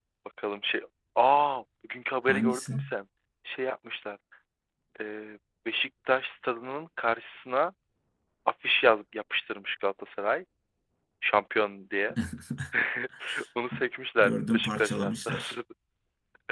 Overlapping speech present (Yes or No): Yes